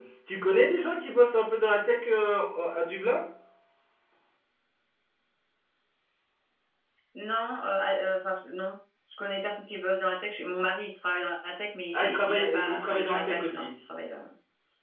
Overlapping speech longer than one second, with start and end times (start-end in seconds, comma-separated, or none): 11.9-13.7